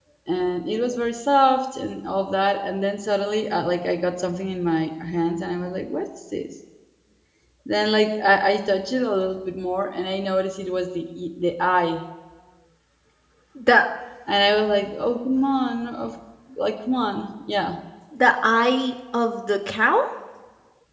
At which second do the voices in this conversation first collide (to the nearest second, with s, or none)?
none